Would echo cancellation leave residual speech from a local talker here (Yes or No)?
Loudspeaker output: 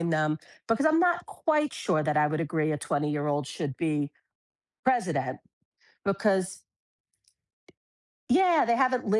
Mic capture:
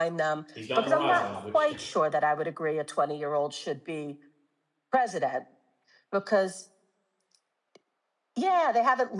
Yes